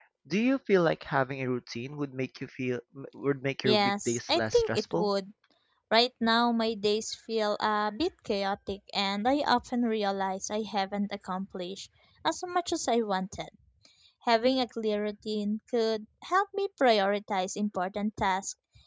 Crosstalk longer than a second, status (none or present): present